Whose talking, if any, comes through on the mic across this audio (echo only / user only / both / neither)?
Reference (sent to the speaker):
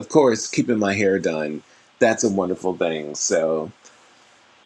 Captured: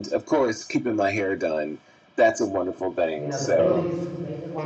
both